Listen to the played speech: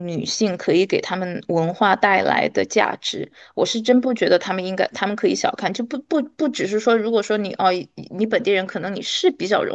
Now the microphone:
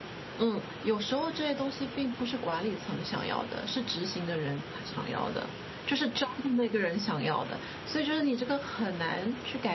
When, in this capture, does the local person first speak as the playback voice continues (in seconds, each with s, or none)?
0.4 s